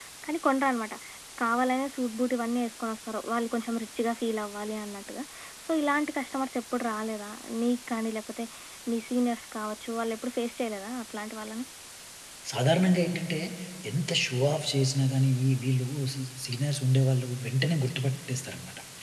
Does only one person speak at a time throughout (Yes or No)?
Yes